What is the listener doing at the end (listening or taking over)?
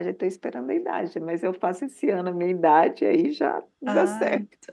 taking over